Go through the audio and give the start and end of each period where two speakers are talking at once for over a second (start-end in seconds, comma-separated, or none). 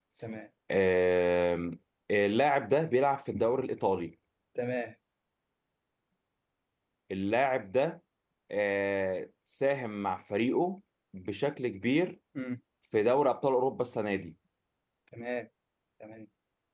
none